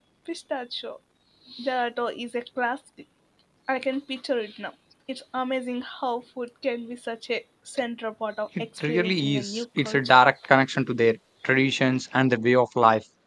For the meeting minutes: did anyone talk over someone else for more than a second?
Yes, from 8.6 s

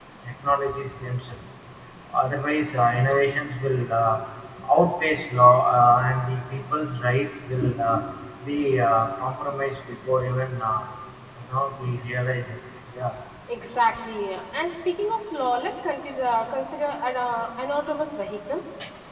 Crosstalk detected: No

